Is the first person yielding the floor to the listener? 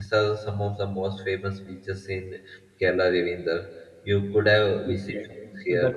Yes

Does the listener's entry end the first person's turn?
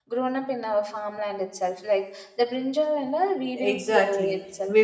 Yes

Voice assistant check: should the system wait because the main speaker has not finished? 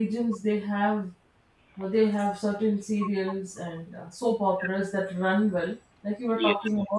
Yes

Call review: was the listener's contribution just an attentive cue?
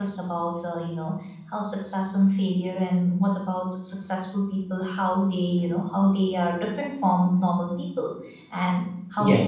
No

